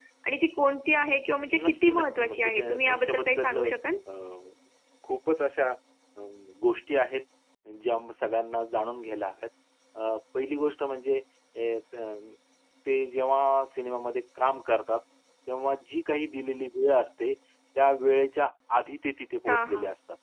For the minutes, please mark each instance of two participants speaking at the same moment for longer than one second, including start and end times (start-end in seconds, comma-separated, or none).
1.5-3.6